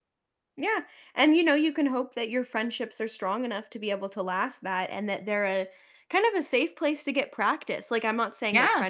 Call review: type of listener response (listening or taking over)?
listening